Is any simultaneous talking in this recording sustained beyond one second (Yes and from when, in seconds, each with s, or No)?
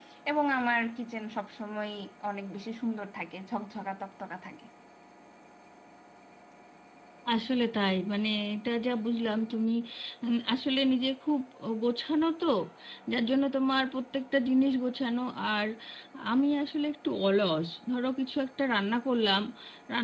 No